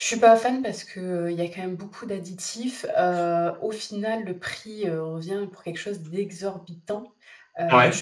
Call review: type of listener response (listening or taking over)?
listening